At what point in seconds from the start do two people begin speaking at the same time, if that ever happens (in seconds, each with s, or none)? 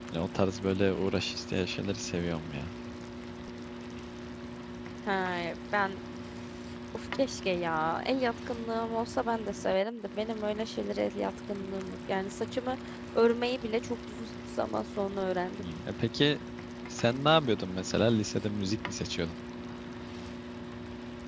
none